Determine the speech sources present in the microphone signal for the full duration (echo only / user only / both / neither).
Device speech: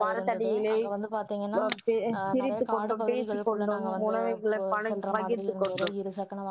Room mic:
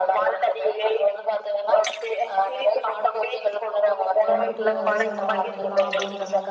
both